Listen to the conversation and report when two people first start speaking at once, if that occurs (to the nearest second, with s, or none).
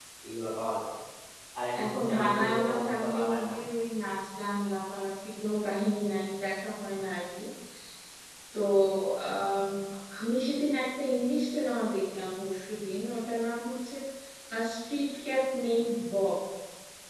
2 s